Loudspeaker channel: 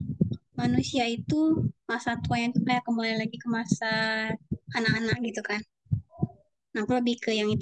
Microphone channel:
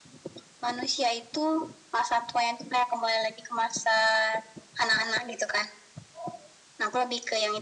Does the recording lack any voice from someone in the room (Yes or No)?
Yes